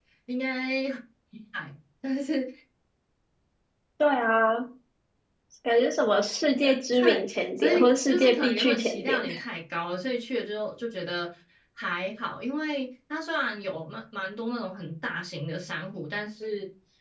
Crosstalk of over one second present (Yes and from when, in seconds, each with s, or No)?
Yes, from 7.0 s